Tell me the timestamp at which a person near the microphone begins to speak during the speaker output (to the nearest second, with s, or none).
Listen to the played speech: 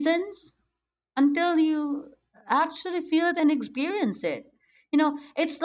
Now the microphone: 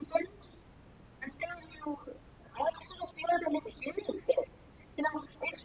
none